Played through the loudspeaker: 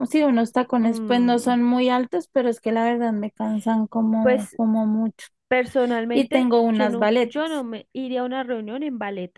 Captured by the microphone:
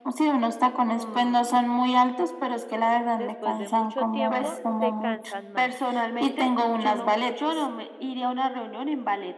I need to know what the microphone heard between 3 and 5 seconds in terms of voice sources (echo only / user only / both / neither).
both